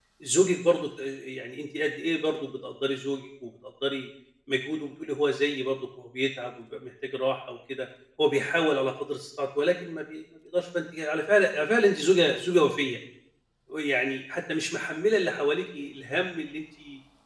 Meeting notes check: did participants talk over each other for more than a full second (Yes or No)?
No